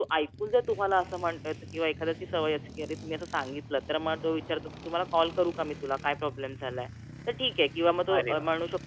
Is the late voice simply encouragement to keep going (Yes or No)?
Yes